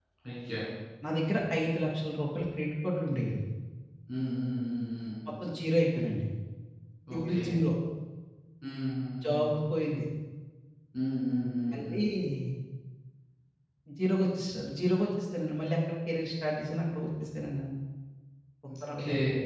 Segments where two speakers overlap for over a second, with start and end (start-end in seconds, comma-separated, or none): none